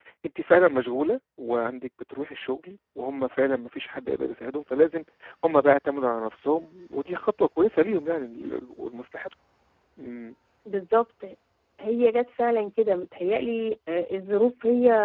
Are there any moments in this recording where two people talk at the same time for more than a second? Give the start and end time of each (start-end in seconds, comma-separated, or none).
none